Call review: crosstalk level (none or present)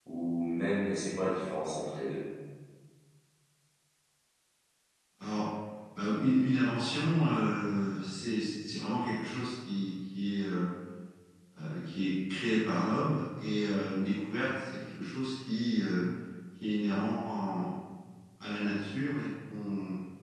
none